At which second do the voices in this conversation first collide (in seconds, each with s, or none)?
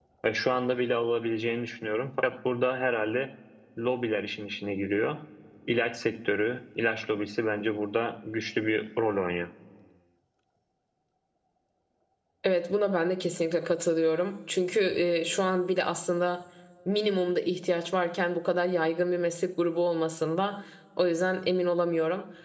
none